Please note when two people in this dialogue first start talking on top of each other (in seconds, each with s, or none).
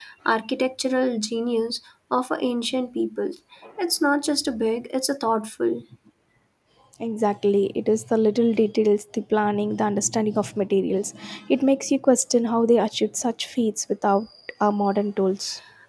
none